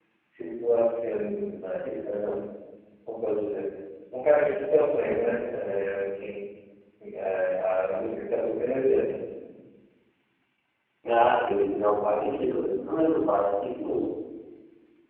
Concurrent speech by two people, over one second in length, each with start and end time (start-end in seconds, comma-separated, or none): none